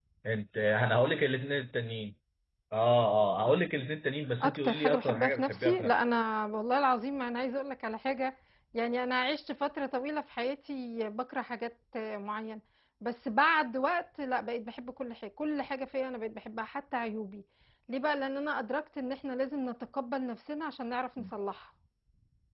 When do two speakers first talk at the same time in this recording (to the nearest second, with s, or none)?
4 s